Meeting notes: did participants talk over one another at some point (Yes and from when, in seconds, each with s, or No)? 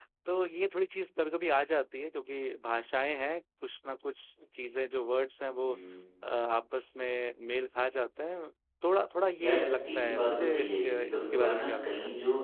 Yes, from 9.4 s